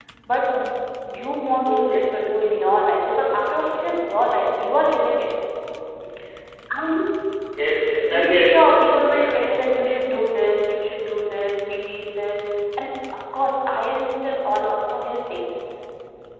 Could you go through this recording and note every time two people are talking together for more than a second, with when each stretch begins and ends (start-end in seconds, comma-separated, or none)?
8.1-9.4